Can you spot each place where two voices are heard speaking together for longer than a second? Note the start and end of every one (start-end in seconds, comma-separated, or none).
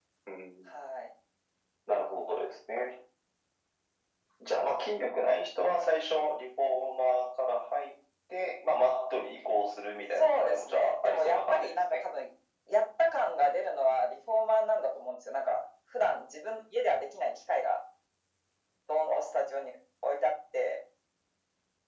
10.2-12.0